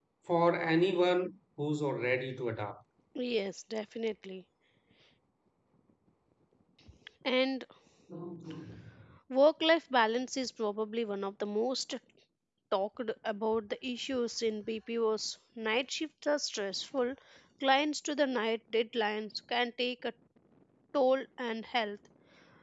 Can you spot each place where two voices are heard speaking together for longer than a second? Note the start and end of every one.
none

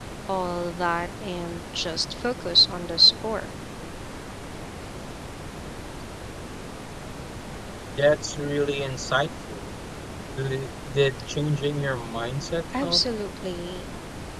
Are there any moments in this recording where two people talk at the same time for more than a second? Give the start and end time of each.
none

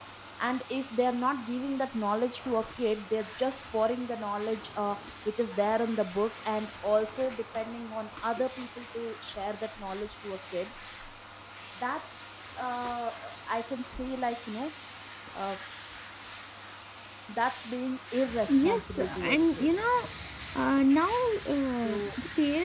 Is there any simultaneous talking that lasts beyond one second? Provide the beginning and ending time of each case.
18.5-19.7

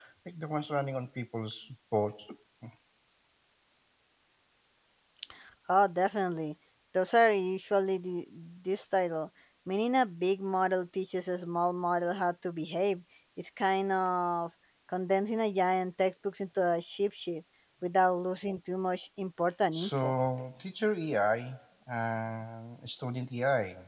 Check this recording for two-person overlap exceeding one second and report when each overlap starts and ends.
none

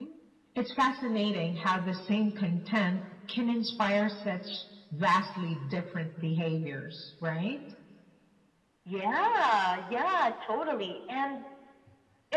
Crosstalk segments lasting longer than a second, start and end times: none

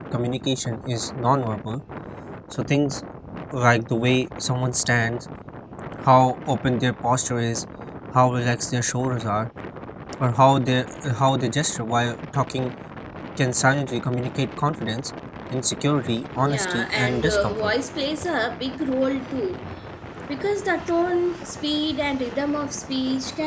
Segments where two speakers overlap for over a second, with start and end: 16.5-17.7

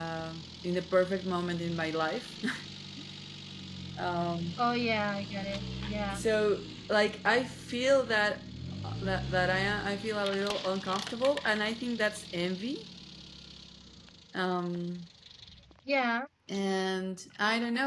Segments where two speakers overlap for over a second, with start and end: none

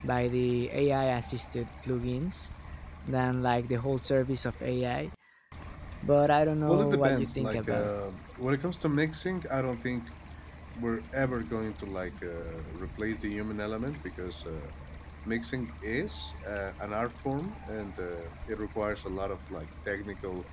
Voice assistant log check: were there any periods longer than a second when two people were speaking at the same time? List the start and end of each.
6.7-7.9

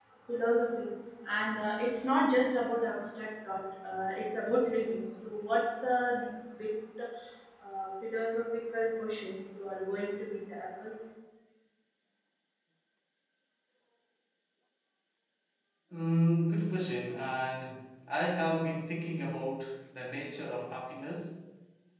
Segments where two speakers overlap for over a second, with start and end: none

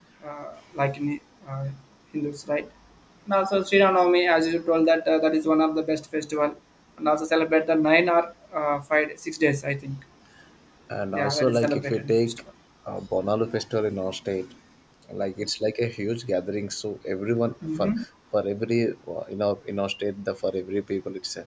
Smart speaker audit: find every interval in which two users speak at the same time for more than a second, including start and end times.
11.1-12.4

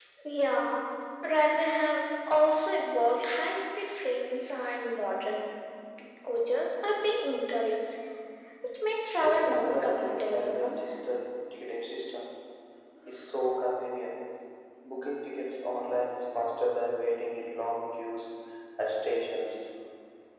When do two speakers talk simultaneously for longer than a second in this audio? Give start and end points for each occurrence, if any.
9.2-10.8

